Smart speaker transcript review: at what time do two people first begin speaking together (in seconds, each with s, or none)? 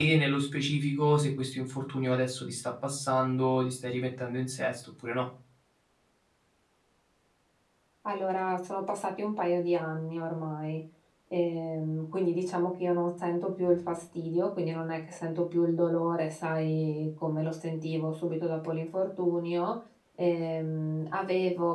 none